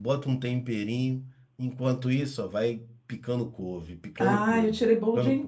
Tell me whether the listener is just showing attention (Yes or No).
No